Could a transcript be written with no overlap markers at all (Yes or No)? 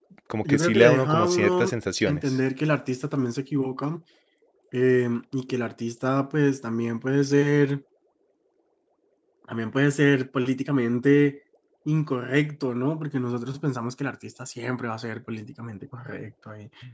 No